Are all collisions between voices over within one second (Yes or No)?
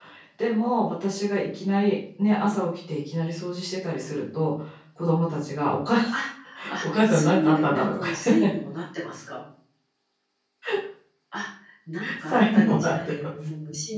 No